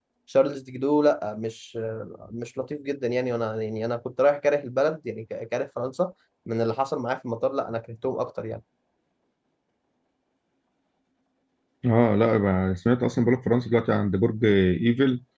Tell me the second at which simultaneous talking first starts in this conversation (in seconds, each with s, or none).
none